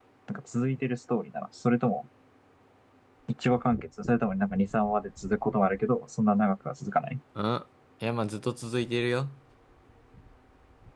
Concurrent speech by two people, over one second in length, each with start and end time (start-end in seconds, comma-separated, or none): none